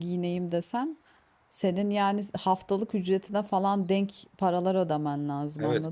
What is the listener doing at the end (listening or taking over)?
taking over